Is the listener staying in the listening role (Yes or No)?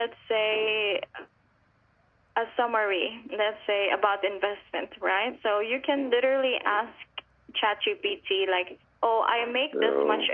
Yes